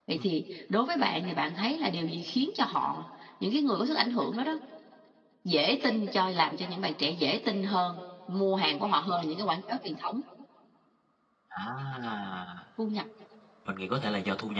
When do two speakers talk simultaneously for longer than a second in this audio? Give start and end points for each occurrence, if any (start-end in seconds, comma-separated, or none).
none